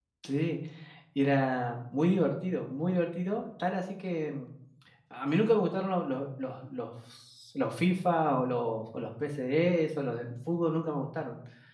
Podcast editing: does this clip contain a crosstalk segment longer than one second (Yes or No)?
No